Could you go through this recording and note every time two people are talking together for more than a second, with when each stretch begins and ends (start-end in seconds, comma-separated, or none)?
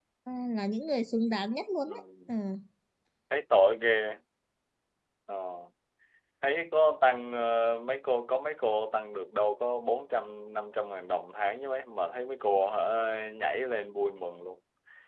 none